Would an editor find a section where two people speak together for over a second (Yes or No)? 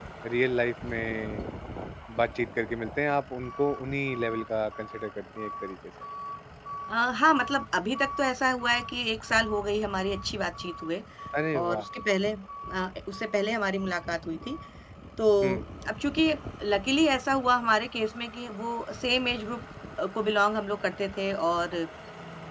No